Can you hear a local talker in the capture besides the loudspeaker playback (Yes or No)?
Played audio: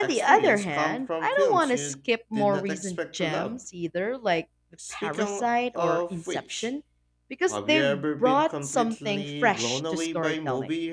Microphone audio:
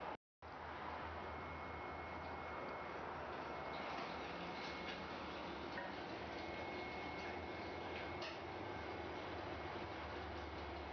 No